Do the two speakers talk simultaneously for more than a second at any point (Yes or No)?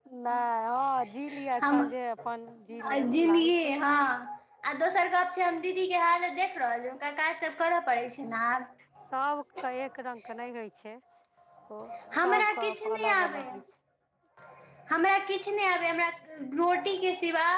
Yes